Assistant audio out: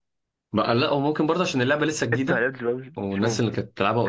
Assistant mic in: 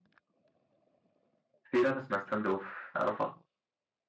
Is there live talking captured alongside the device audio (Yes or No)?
Yes